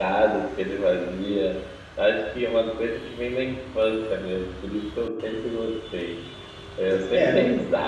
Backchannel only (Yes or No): Yes